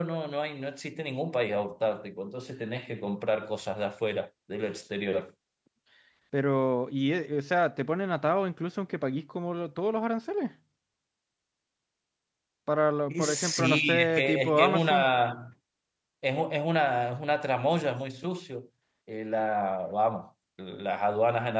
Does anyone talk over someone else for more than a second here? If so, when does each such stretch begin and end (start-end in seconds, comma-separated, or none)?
13.1-15.1